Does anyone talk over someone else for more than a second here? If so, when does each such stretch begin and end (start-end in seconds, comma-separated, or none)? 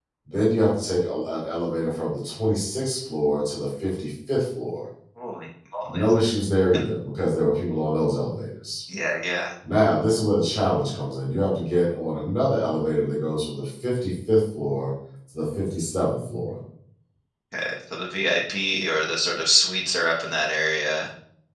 none